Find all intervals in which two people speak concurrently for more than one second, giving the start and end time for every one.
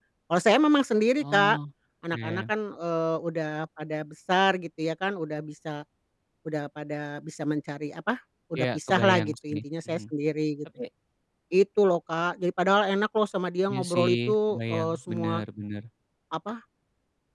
8.5-10.0, 13.7-15.4

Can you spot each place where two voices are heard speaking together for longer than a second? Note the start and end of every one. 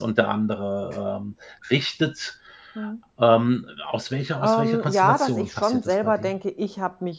4.4-6.3

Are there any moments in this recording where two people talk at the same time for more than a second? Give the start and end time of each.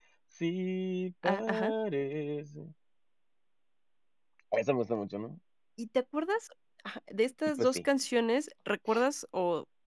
none

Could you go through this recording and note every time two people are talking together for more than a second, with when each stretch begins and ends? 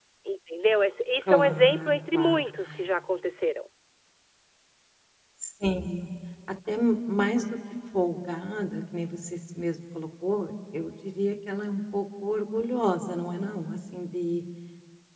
1.2-2.4

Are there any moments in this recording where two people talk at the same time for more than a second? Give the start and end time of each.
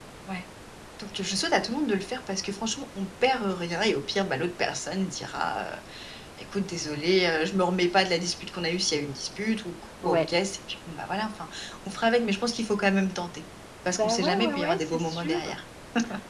13.9-15.4

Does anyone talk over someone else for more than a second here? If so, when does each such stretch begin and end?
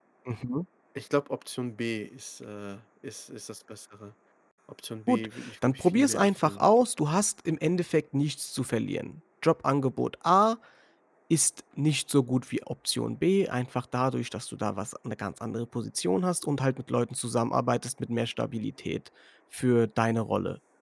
5.1-6.6

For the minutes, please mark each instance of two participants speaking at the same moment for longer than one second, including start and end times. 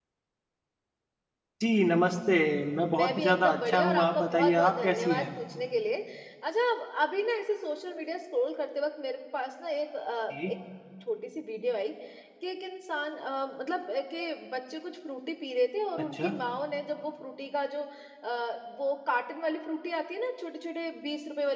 2.9-5.3

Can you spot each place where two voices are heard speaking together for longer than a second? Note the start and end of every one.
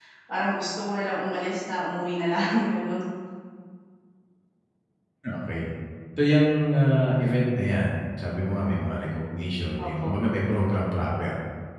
none

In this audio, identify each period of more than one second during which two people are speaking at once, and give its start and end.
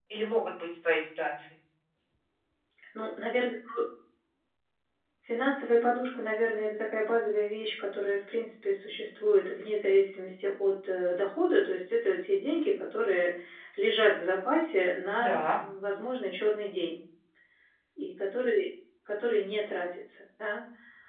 none

